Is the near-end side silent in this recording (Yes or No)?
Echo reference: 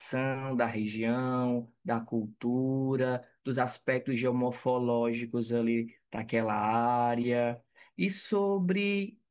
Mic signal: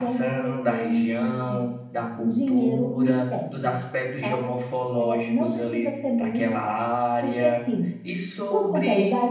No